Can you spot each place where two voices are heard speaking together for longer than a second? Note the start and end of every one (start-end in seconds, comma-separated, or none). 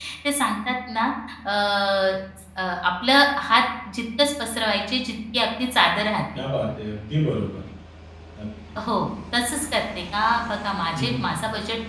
none